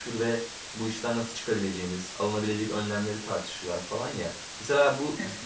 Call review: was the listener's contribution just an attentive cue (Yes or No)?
Yes